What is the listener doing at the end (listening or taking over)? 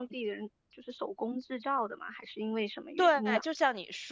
taking over